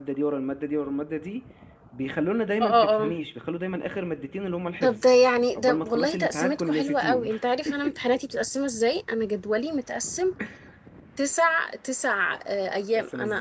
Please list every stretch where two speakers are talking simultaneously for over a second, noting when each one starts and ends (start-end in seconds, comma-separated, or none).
5.6-7.3